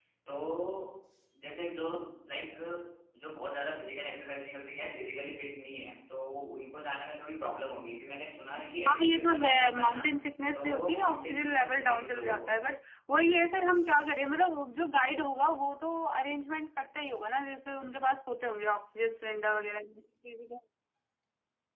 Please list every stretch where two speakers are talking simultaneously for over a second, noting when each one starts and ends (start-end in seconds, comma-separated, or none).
8.6-10.1, 10.5-12.6